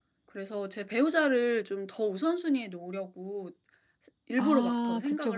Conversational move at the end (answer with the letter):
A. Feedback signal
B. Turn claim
B